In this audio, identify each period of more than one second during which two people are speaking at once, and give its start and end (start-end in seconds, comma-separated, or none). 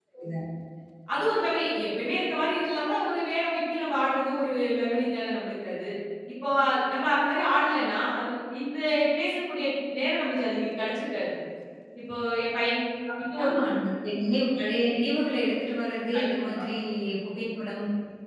none